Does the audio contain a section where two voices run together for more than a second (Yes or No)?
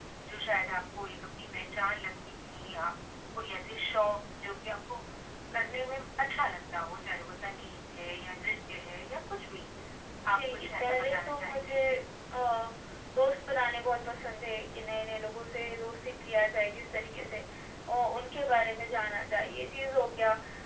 Yes